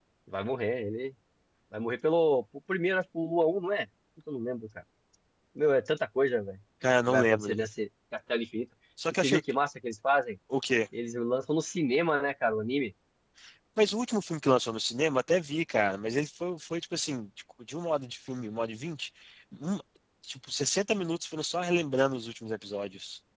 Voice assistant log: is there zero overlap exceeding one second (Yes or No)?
Yes